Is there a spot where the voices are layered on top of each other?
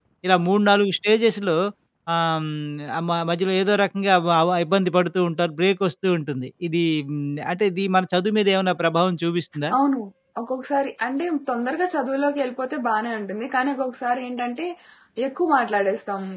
No

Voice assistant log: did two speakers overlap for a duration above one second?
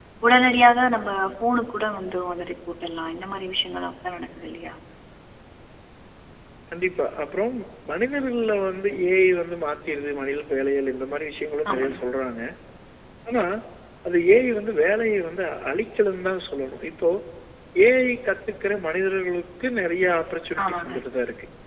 No

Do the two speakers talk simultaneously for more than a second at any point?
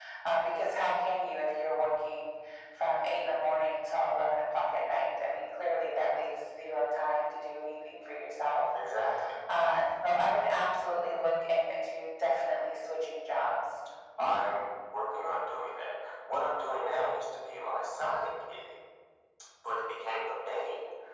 No

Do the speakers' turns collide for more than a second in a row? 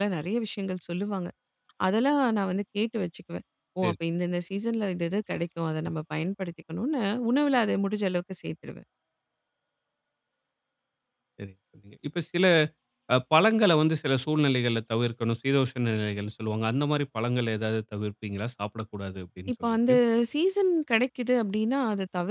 No

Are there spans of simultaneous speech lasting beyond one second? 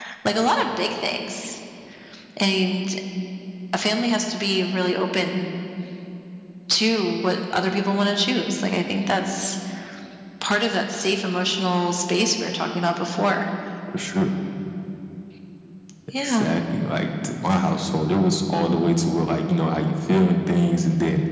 No

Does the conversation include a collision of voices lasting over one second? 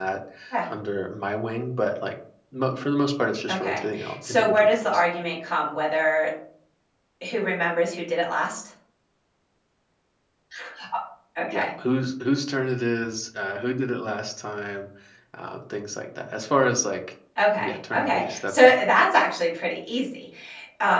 Yes, from 3.5 s

